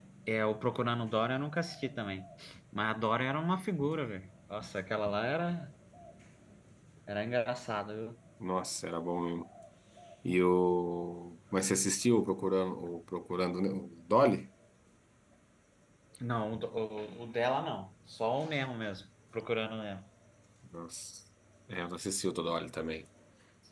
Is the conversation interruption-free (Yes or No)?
Yes